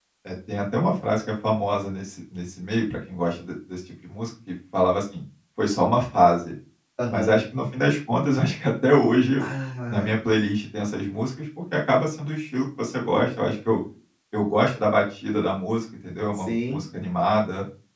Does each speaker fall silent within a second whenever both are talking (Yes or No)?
Yes